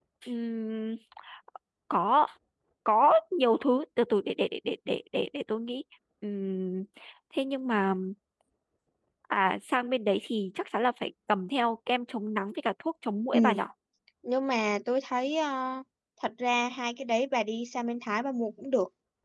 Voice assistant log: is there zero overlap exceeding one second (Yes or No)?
Yes